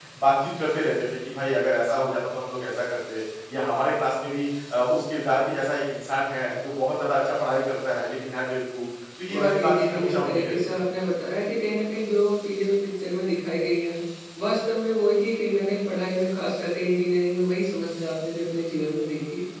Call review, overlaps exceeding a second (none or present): present